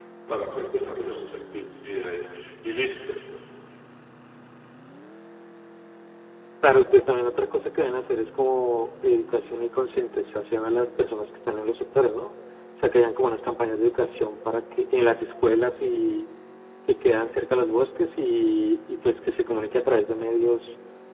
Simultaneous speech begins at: none

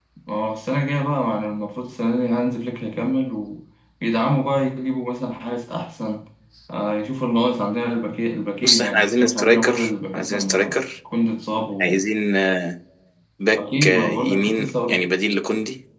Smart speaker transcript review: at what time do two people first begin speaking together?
8.6 s

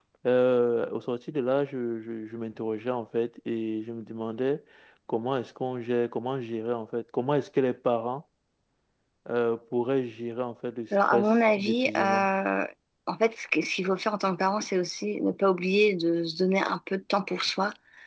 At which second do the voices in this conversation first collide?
10.9 s

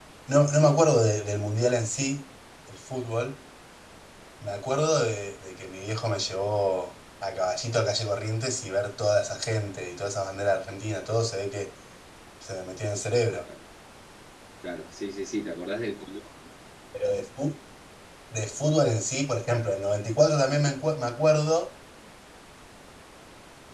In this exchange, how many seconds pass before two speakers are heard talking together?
none

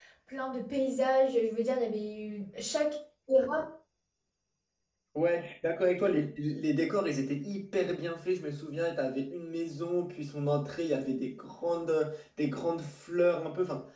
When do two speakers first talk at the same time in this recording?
none

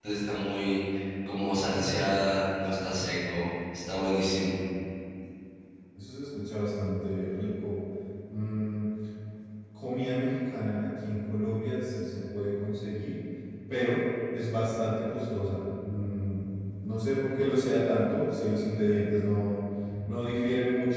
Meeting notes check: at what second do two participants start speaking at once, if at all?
none

